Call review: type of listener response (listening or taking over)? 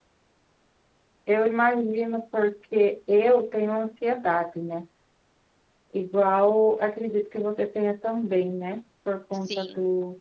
listening